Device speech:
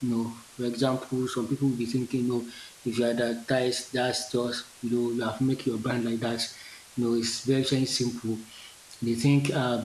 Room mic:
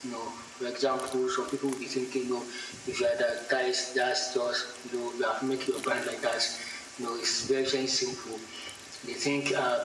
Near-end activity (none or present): none